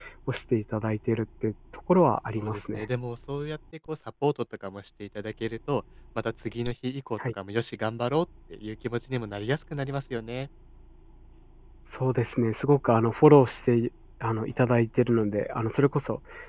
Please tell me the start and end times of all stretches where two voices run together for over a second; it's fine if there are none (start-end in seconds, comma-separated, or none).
none